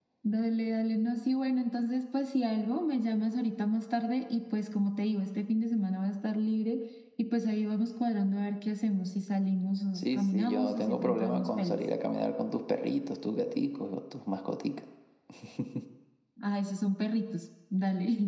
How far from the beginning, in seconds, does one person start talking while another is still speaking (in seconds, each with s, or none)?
9.9 s